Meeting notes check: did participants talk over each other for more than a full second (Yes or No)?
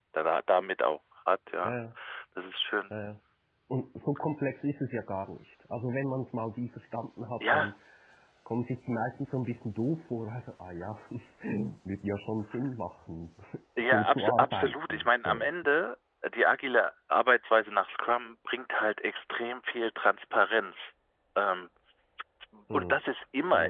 Yes